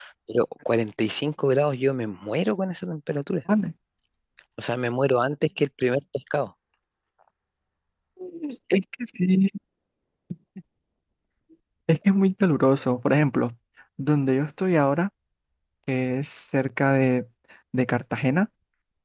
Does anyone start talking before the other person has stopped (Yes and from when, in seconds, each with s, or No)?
No